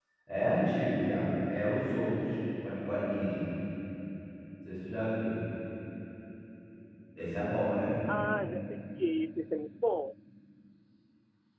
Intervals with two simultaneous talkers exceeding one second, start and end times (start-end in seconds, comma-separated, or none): none